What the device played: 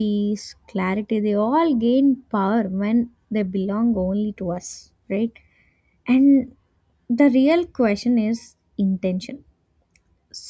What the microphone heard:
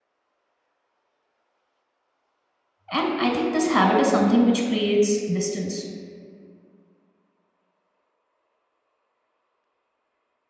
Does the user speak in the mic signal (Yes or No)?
Yes